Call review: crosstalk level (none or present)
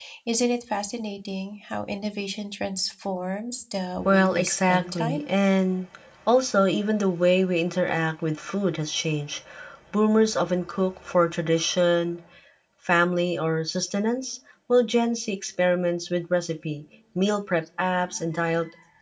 present